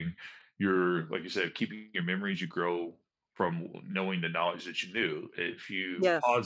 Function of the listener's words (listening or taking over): listening